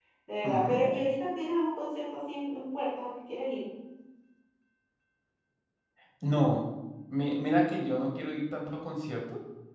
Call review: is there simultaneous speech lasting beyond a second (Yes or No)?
No